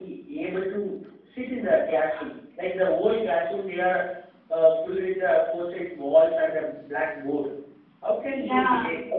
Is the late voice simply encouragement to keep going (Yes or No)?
Yes